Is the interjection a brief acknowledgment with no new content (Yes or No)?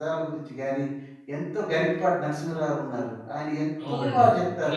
No